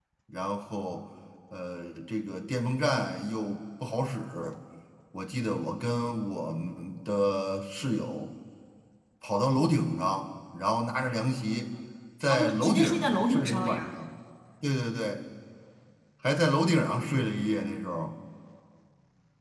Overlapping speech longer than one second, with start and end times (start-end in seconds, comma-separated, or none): 12.3-13.9